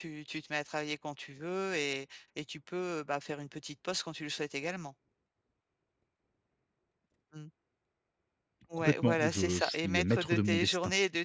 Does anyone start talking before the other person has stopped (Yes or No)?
Yes